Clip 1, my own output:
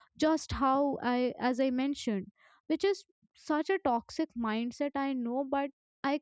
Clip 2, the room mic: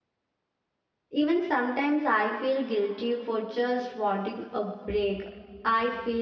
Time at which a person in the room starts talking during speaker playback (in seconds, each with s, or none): 1.1 s